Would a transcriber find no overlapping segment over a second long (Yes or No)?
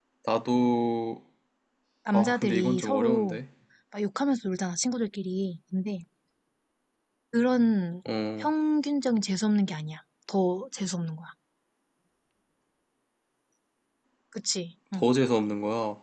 No